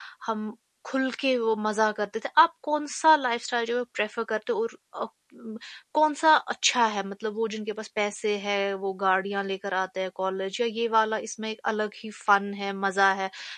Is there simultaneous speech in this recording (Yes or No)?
No